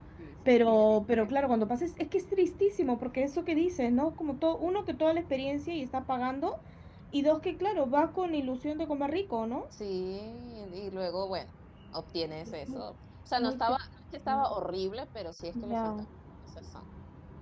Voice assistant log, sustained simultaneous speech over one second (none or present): none